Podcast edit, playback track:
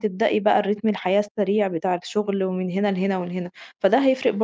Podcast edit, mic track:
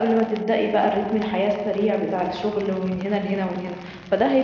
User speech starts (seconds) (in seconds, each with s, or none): none